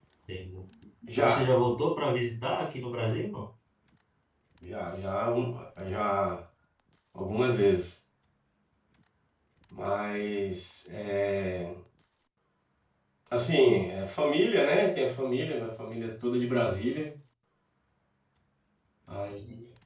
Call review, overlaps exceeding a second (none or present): none